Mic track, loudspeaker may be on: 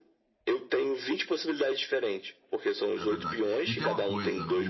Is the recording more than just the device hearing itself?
Yes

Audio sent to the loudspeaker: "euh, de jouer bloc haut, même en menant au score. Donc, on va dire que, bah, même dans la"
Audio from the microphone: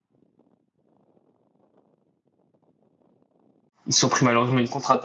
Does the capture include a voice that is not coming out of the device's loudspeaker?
Yes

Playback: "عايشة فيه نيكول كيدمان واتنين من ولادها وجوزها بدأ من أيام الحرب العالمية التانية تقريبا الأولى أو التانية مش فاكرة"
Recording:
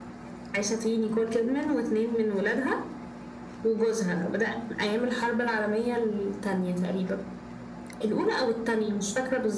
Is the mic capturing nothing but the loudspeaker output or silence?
Yes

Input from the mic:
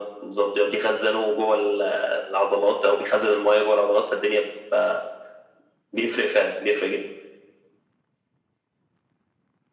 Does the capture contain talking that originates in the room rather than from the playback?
No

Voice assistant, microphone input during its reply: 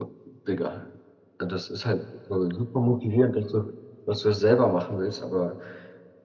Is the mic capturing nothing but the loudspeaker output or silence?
Yes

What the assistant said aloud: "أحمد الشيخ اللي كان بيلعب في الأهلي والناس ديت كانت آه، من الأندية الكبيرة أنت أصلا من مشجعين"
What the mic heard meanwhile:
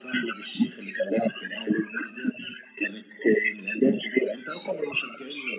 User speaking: No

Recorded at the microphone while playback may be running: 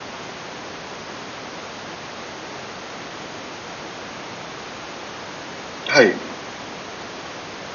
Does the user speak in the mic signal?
Yes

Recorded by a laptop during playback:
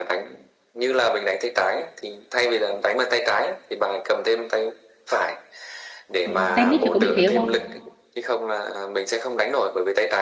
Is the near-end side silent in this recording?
No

